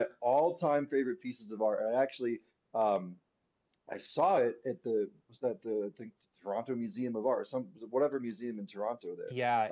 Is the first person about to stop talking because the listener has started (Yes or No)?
Yes